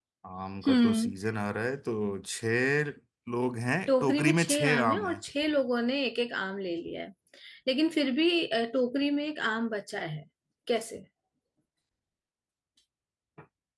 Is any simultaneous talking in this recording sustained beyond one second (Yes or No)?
Yes